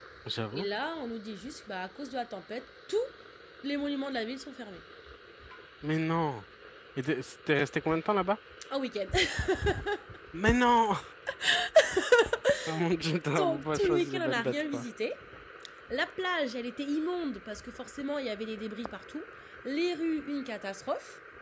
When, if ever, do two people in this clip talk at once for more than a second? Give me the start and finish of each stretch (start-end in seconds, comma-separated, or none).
13.4-14.8